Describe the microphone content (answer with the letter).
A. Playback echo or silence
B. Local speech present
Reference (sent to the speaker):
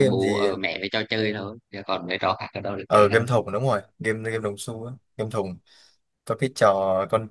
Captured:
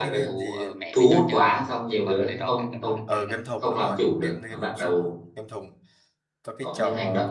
B